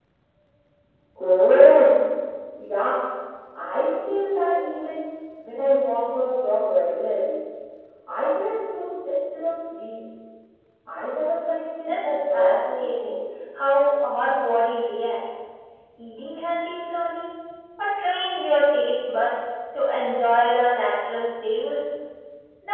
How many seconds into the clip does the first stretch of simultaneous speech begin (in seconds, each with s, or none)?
11.9 s